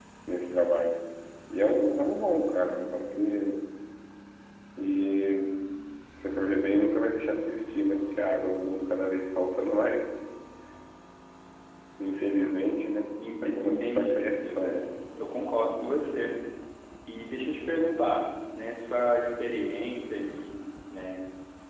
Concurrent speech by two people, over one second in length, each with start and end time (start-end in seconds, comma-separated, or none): 13.4-14.8